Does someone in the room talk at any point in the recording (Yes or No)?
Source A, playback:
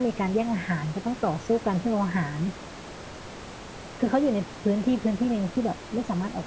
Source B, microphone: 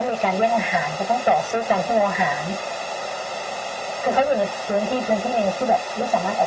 No